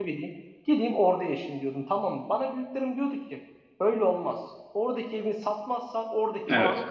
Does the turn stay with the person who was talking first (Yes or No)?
Yes